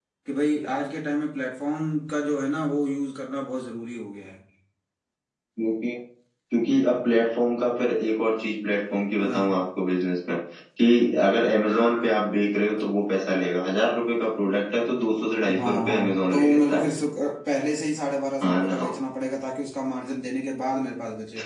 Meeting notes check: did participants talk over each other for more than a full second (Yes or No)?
Yes